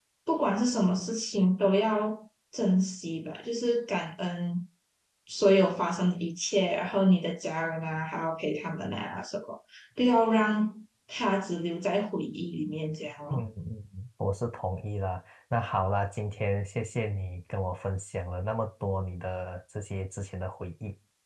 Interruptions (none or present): none